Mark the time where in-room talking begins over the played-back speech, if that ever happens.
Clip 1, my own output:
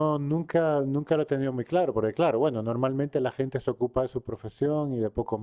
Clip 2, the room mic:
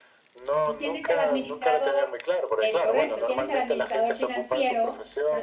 0.5 s

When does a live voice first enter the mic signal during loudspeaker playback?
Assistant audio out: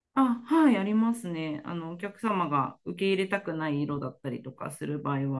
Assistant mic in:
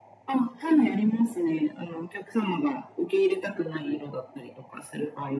none

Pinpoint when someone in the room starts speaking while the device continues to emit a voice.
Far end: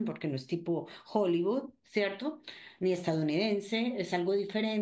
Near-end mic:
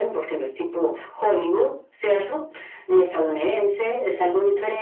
none

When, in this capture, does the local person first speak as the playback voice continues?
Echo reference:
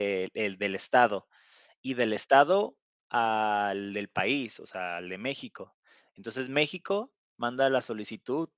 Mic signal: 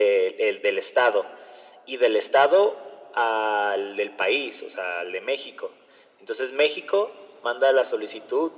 none

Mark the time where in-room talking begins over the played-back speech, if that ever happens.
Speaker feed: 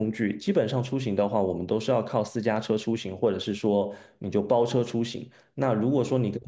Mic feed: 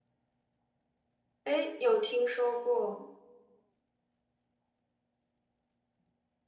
1.4 s

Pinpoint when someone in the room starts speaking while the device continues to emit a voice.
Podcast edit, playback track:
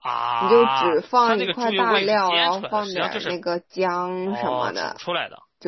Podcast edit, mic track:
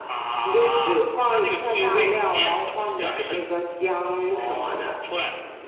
none

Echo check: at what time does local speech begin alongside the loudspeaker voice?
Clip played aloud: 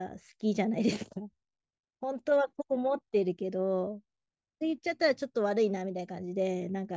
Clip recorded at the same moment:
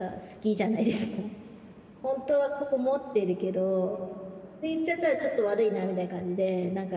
none

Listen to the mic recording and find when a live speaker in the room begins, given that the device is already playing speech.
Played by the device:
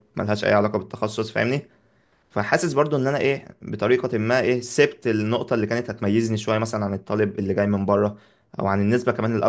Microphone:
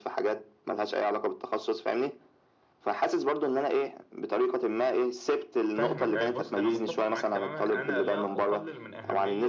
5.7 s

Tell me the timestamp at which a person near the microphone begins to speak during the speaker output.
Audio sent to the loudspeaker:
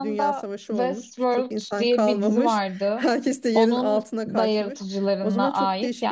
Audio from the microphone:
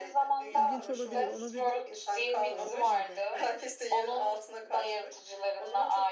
0.5 s

